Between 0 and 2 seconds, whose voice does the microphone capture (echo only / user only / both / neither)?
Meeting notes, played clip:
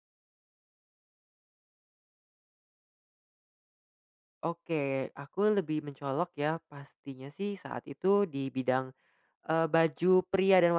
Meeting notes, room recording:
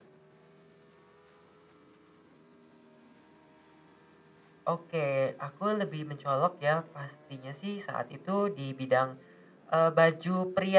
neither